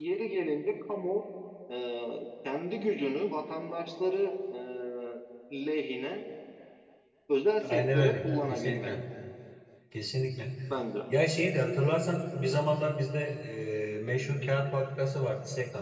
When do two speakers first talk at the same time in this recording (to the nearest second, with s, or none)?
8 s